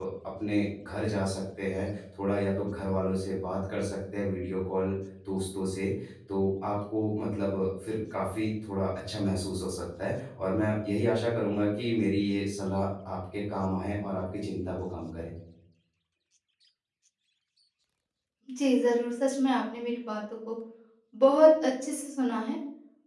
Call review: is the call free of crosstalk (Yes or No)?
Yes